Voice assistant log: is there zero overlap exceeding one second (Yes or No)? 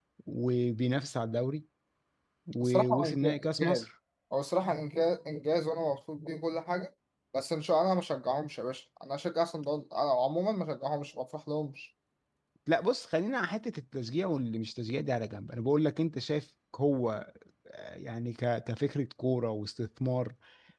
No